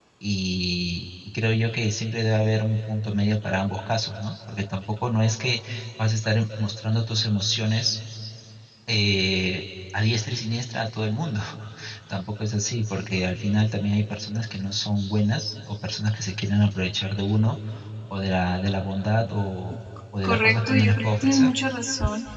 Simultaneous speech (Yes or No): Yes